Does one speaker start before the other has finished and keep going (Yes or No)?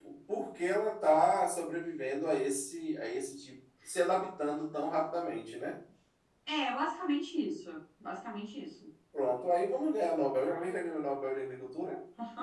No